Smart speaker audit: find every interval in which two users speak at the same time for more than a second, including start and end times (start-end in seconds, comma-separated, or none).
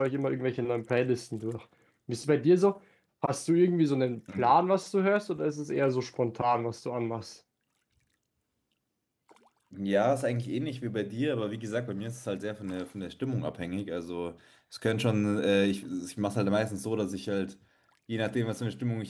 none